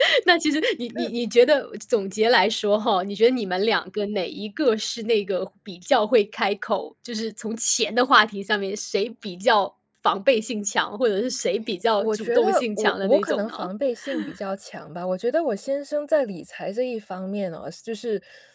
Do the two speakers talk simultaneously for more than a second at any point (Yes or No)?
Yes